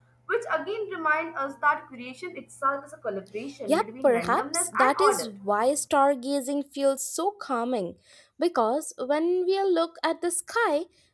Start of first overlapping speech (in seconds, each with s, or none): 3.7 s